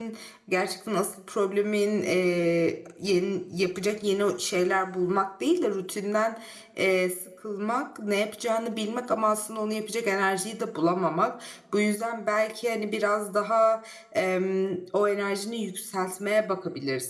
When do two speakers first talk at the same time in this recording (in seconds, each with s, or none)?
none